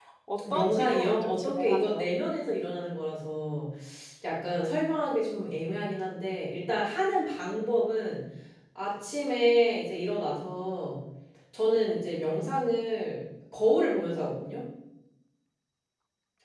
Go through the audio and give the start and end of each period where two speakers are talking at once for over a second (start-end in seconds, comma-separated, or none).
0.5-2.1